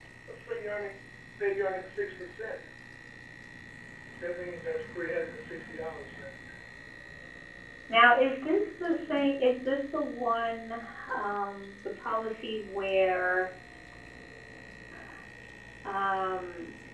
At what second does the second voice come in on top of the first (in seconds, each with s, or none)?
none